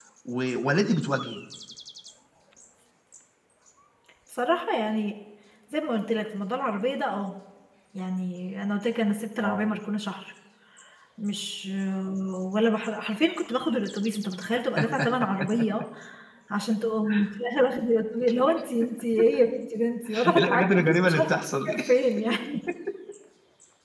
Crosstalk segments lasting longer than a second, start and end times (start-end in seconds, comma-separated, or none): 20.3-21.8